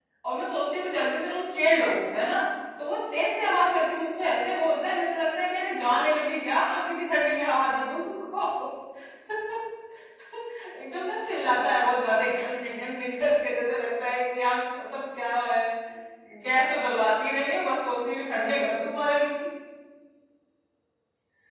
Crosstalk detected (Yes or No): No